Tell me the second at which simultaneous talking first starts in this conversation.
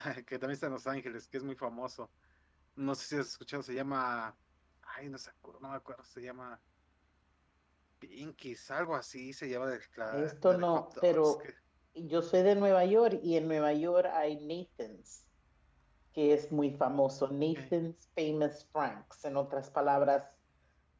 10 s

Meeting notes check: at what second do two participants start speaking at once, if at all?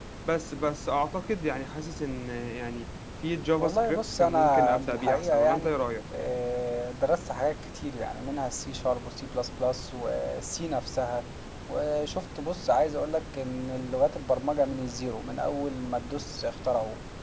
4 s

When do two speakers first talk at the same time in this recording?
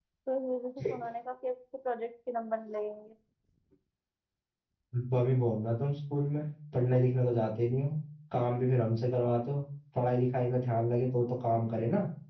none

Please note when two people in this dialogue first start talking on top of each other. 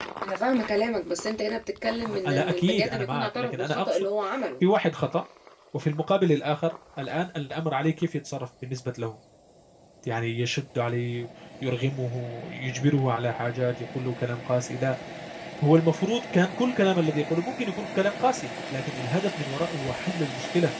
2 s

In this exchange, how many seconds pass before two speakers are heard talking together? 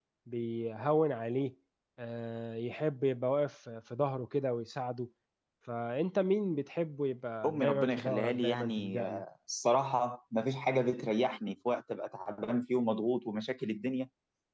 7 s

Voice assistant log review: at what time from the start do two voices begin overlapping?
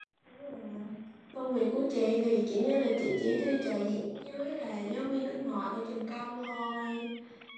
none

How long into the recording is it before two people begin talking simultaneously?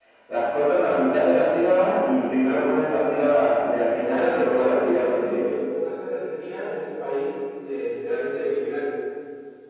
4 s

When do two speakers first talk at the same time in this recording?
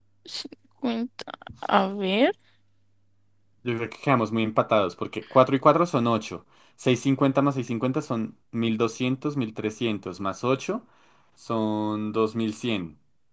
none

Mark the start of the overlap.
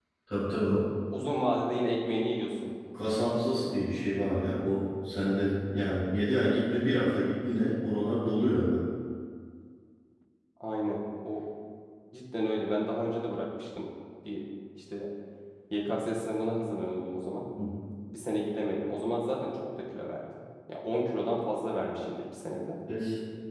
none

